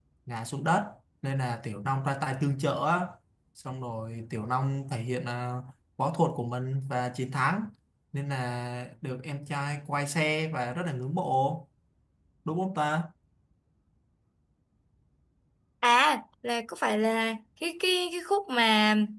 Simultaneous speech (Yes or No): No